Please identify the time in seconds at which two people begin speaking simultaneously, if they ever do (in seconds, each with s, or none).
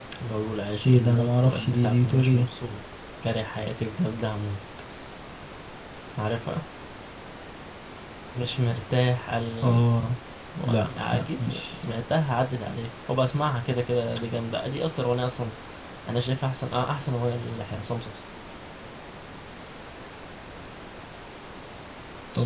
0.9 s